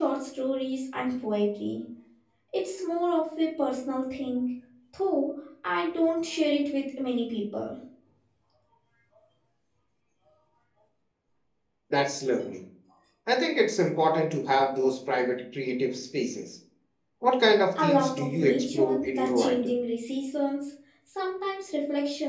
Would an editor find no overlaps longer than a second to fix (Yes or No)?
No